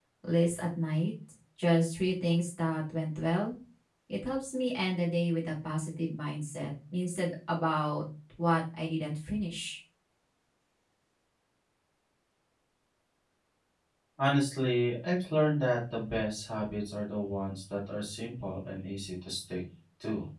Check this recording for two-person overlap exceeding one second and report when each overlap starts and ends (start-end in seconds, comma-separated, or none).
none